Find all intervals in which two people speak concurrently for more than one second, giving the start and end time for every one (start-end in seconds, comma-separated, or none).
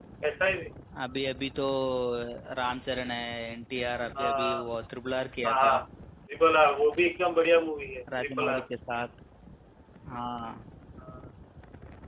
none